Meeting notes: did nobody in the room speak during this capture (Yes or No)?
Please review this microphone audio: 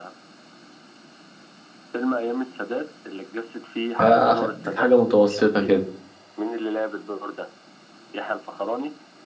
No